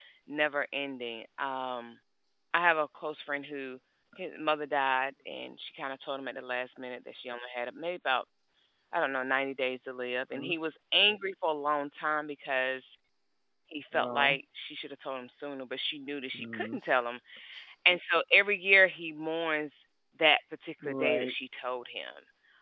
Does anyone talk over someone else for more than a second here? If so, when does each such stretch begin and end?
none

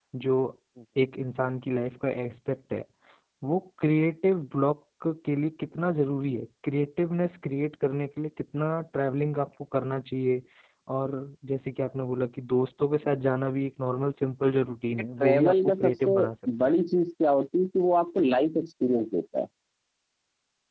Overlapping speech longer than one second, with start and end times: 14.9-16.2

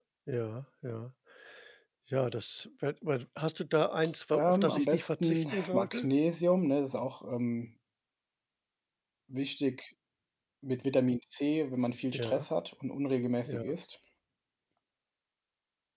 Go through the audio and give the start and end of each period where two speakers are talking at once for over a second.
4.3-6.1

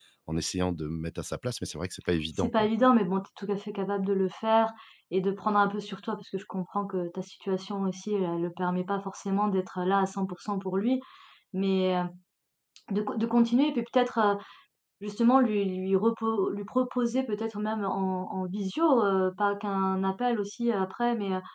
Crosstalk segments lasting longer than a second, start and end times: none

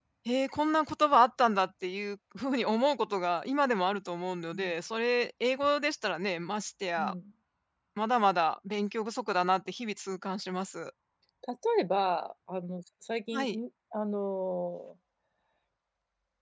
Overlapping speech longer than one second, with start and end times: none

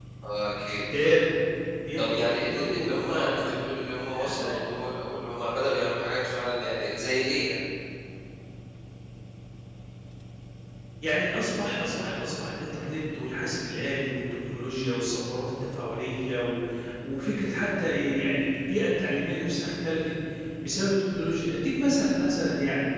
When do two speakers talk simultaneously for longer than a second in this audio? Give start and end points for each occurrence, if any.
2.0-3.6

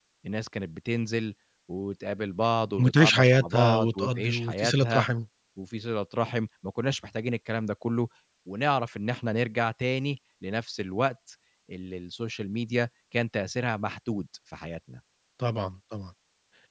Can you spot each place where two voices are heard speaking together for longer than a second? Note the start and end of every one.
2.8-5.1

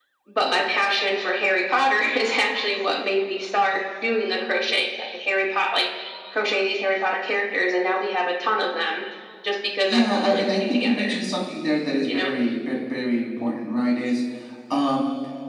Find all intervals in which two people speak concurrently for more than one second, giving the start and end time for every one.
9.9-11.2

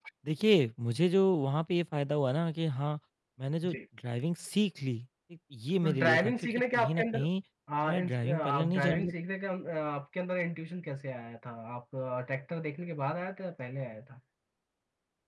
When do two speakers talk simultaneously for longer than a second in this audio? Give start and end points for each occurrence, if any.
5.8-7.2, 7.9-9.1

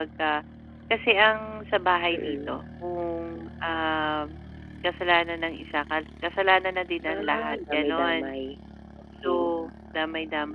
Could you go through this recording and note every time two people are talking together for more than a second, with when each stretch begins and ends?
7.1-8.4

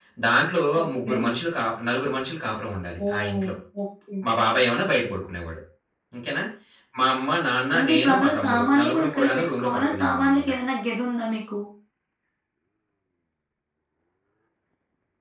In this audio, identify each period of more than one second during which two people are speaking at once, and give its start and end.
7.8-10.5

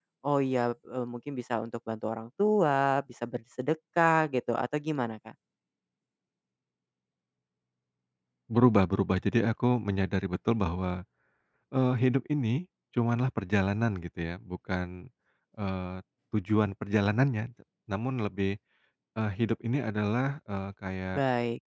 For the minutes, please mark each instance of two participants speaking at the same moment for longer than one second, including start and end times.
none

